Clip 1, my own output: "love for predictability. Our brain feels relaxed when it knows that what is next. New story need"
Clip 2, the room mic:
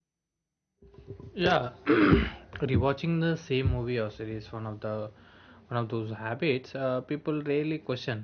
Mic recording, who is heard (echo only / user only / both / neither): user only